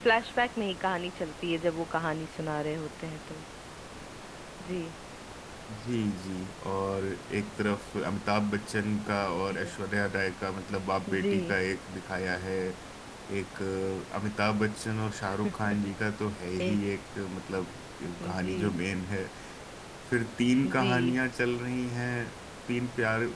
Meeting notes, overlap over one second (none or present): none